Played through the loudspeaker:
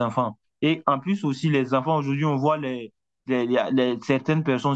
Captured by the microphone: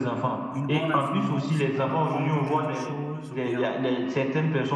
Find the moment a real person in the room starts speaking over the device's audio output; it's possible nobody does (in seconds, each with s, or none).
0.5 s